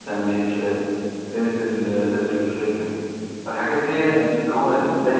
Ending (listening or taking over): listening